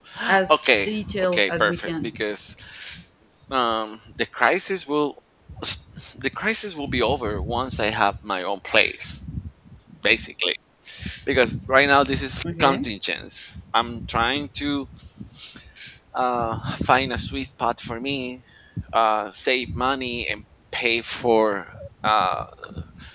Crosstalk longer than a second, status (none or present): present